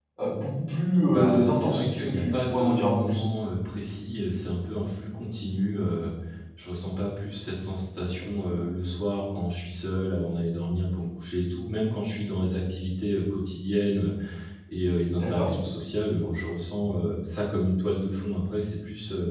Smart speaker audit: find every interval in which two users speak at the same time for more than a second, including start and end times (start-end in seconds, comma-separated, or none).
1.1-3.2